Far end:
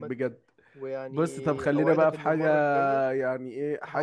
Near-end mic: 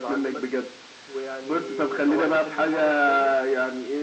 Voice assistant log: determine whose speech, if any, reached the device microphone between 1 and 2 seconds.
echo only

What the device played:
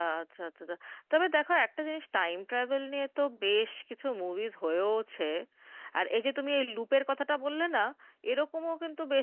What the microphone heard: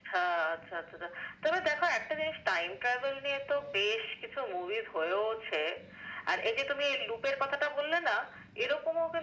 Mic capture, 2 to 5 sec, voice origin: echo only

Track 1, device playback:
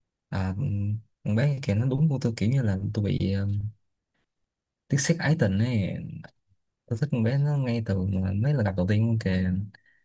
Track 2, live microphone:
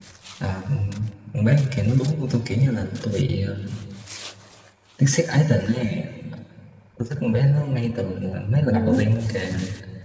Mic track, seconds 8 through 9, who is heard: both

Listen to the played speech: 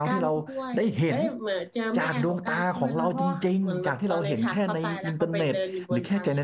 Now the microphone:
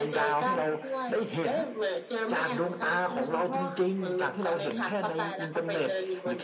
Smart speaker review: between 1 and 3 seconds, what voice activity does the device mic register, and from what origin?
echo only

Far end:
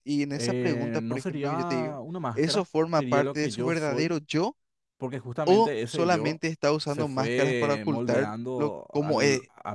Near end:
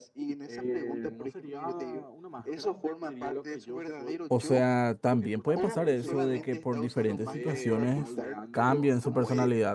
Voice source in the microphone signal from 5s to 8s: both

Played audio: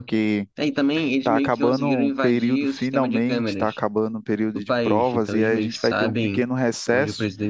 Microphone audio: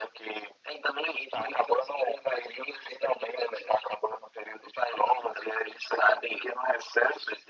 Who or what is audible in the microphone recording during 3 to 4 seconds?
echo only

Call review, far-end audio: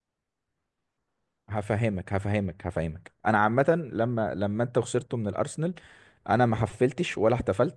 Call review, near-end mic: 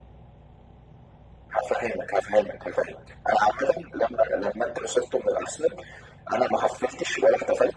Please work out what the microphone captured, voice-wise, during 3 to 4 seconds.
echo only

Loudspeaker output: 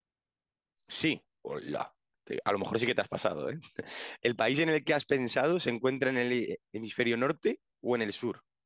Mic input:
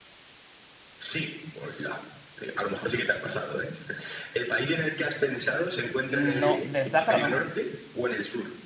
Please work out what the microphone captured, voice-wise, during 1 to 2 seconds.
echo only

